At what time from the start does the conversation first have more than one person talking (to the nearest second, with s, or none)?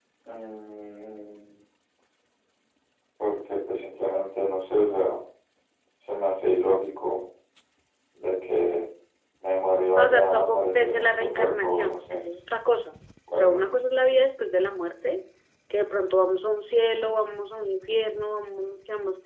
10 s